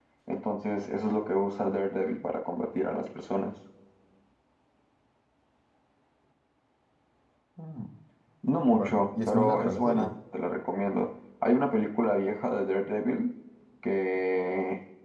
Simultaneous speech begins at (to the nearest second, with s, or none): 9 s